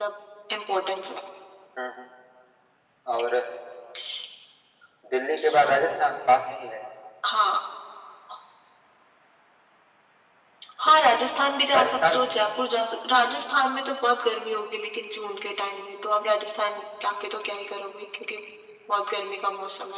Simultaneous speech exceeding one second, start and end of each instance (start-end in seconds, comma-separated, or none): none